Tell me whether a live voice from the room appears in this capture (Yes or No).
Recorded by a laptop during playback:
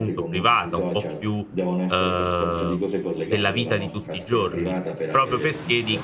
Yes